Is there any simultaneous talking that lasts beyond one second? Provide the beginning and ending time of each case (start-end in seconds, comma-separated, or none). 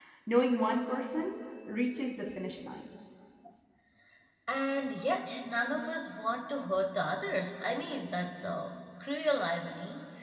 none